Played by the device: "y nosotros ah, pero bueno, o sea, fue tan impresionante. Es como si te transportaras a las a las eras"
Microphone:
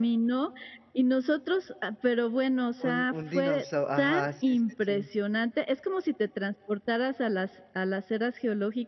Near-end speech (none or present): present